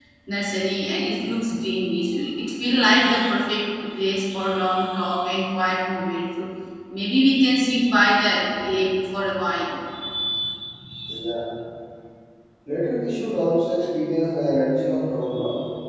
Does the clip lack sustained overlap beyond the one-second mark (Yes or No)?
Yes